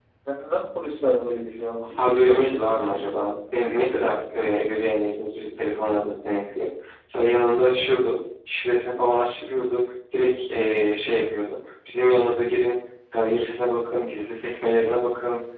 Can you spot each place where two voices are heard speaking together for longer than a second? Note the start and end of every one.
2.0-3.4

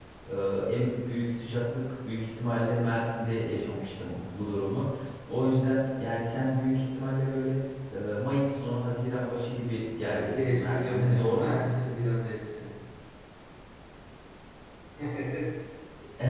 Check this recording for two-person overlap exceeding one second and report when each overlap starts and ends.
10.0-11.6

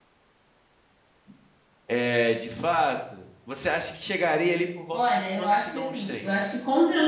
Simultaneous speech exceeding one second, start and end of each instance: 4.9-6.3

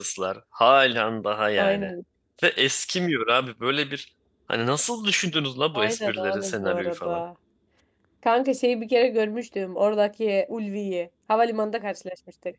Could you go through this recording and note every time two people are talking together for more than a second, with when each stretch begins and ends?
5.7-7.2

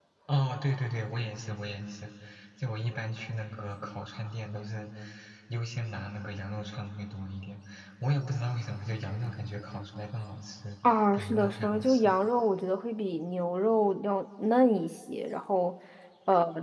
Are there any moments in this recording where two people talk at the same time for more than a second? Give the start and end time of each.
10.8-12.1

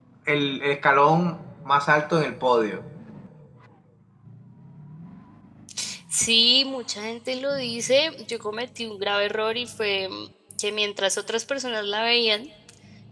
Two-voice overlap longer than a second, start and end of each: none

